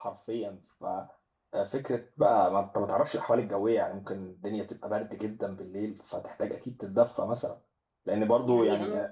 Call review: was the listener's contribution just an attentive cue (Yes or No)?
Yes